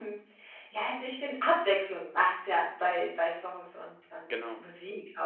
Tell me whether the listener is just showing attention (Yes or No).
Yes